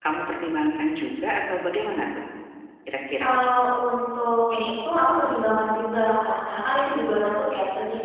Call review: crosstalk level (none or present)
none